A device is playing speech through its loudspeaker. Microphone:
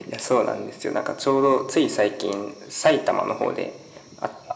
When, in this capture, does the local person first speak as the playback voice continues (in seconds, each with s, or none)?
none